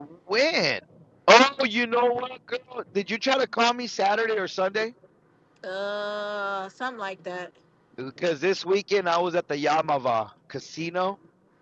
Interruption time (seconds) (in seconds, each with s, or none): none